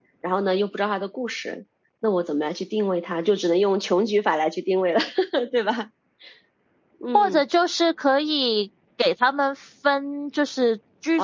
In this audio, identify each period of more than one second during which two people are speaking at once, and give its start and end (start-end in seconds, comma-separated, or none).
none